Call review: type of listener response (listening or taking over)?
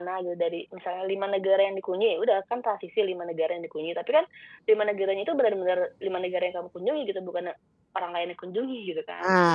taking over